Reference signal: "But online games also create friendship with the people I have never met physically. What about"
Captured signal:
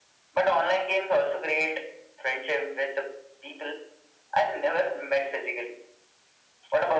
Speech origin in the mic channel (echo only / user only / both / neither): echo only